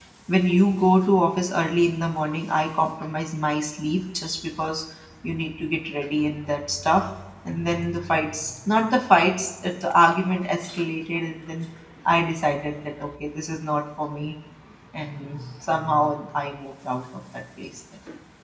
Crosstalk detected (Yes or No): No